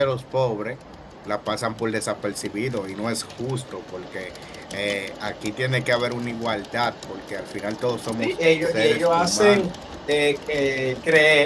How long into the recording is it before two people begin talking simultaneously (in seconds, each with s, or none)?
8.1 s